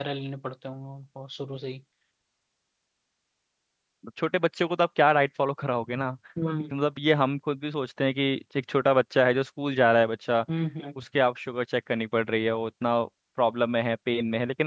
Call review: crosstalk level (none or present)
none